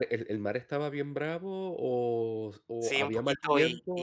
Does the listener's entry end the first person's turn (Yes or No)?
Yes